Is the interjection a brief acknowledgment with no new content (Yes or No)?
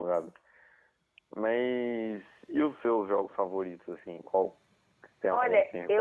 No